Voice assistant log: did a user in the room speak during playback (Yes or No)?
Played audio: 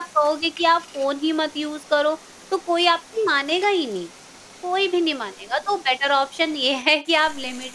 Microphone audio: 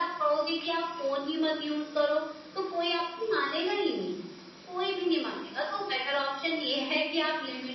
No